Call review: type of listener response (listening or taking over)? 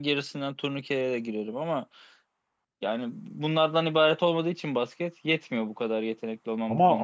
taking over